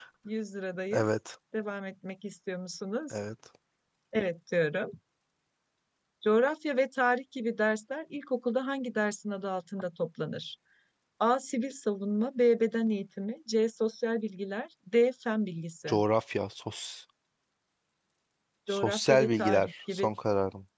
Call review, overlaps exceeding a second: present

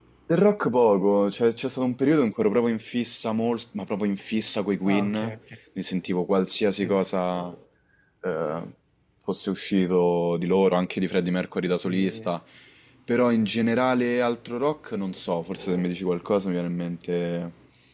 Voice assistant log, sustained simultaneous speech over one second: none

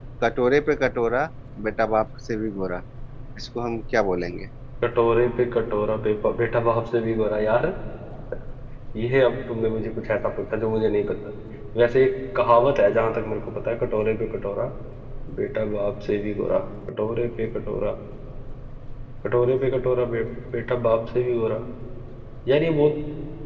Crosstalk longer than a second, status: none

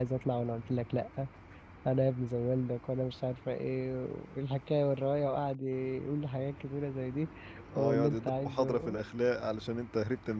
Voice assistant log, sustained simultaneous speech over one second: present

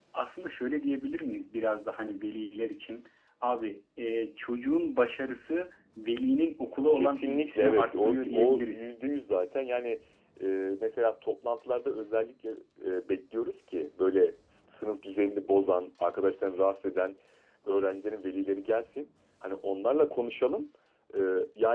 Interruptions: present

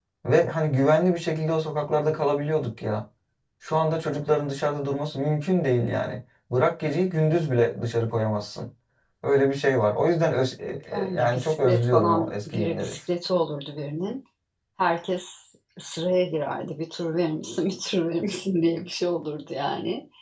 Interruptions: present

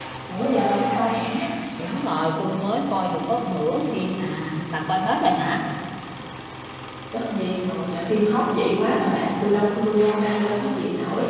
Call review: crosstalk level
none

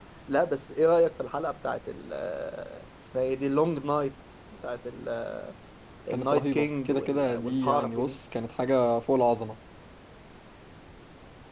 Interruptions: present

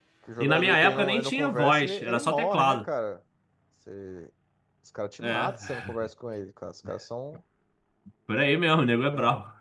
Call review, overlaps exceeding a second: present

